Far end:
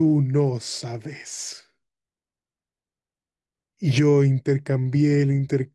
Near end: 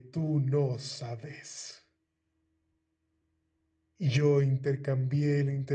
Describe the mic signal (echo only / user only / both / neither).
echo only